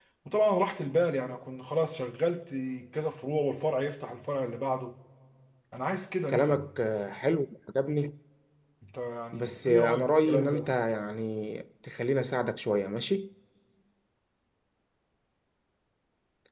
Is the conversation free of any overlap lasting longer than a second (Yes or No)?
No